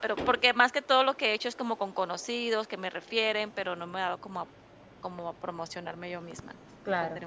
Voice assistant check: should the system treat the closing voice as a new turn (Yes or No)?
Yes